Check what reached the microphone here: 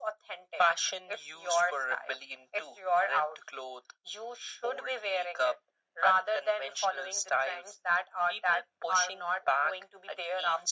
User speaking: No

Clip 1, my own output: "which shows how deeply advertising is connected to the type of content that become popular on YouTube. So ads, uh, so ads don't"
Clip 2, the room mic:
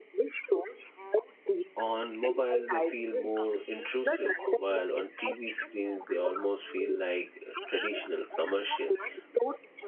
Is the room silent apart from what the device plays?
No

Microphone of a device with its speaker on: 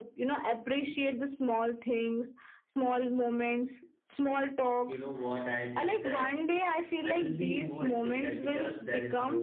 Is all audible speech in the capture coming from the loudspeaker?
No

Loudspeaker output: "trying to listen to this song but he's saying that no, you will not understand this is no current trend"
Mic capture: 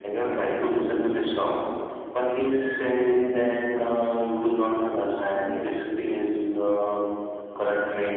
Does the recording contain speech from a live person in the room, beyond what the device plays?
Yes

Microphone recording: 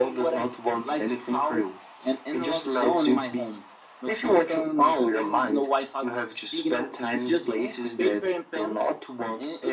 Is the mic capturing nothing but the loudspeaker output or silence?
Yes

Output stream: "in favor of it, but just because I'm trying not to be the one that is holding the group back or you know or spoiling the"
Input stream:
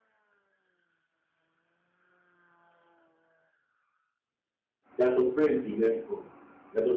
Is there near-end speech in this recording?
Yes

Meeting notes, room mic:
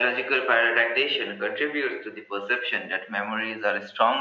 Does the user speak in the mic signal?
No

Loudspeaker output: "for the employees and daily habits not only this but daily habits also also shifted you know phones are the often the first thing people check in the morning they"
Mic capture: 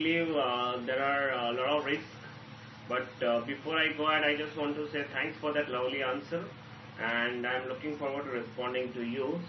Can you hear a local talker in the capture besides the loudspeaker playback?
Yes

